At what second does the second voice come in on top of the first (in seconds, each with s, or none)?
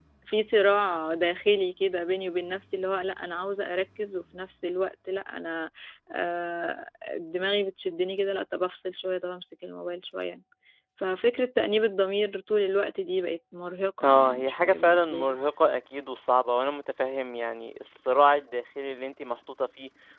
14.0 s